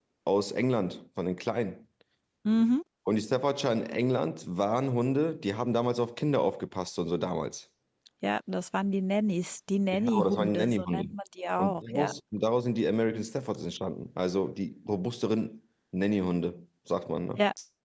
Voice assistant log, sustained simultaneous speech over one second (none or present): present